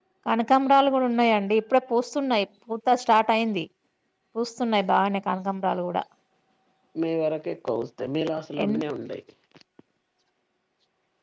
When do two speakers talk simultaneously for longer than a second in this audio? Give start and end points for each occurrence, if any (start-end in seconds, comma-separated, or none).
none